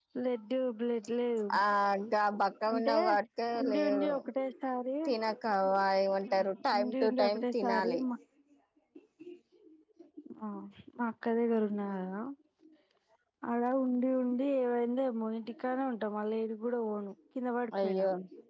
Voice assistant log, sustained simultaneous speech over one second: present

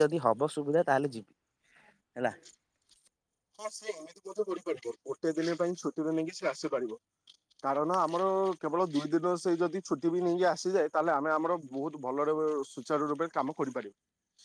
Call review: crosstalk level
none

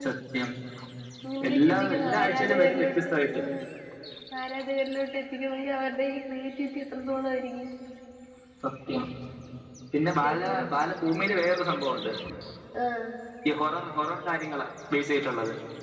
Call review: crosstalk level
present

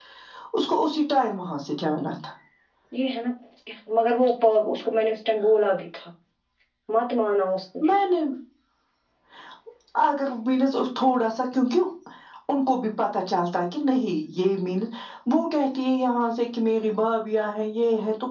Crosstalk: none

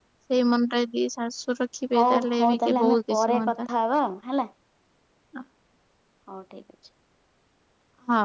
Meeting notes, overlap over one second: present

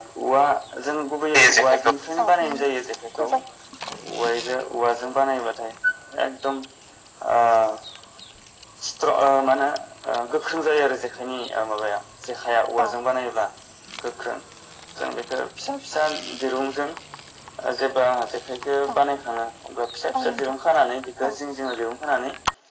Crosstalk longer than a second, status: present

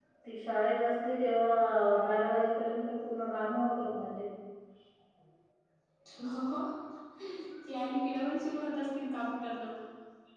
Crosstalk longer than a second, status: none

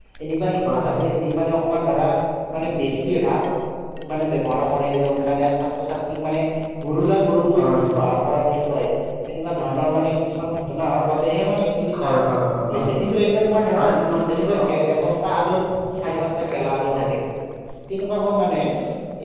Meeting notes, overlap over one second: none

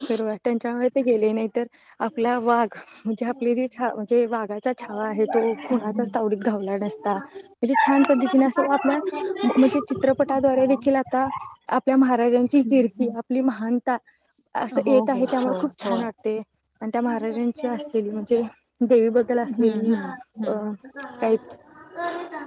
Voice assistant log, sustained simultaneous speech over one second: present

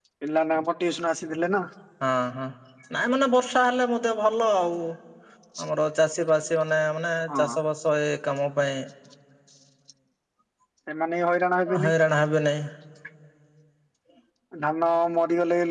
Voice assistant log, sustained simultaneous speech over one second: none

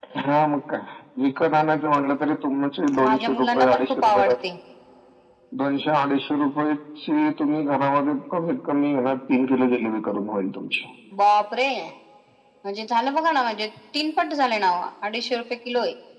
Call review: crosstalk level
present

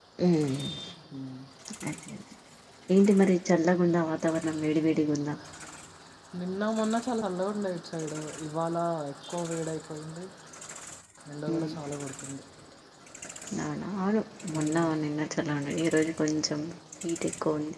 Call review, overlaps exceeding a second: none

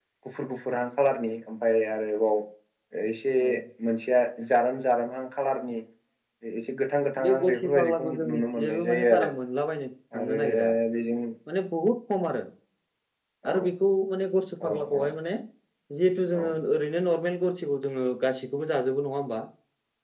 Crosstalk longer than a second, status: present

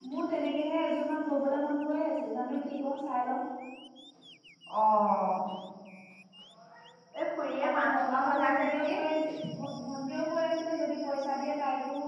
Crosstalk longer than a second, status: present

